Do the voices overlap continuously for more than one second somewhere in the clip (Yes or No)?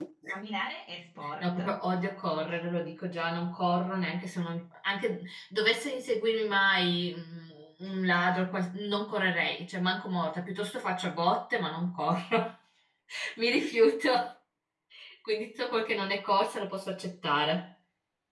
No